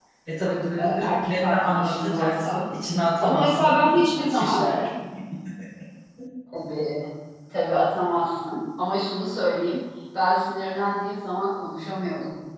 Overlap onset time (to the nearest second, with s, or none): 1 s